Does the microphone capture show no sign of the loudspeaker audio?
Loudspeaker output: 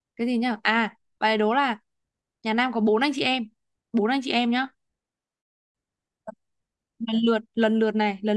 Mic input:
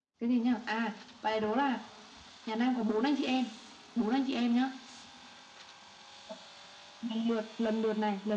No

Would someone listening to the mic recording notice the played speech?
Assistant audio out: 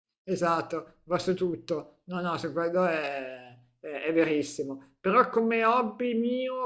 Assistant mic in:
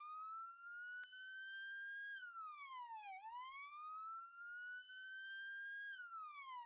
No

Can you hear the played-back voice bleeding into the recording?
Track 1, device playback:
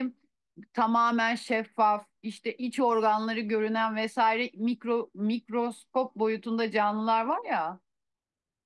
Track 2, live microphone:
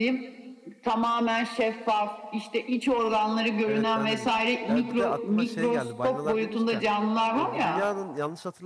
Yes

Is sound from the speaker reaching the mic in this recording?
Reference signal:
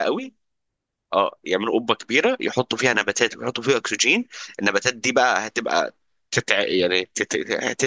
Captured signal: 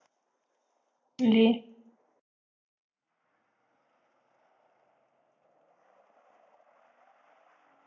No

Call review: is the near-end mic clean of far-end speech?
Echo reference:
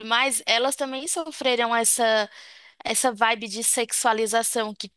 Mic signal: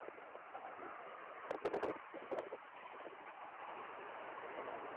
Yes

